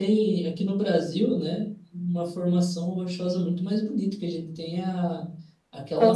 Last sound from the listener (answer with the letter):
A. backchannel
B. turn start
A